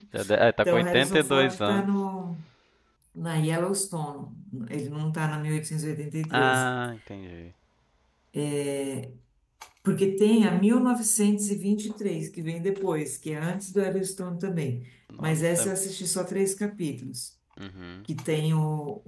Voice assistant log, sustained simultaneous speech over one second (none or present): present